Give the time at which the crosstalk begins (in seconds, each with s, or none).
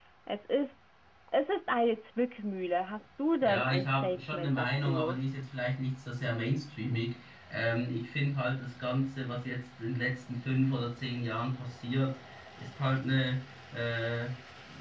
3.4 s